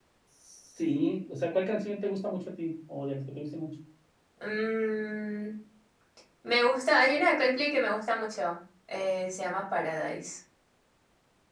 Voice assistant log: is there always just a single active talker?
Yes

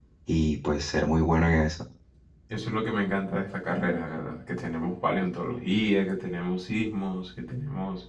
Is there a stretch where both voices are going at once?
No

